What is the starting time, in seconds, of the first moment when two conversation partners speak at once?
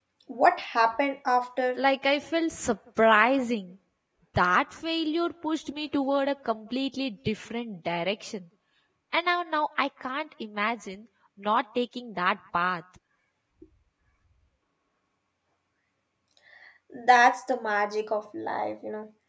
none

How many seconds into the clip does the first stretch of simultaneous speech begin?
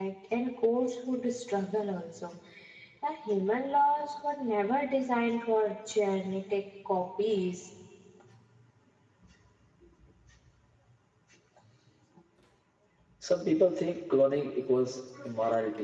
none

